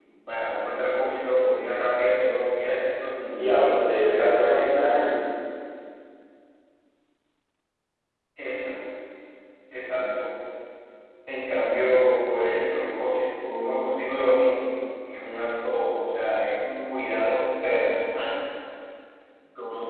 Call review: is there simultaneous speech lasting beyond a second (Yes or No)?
Yes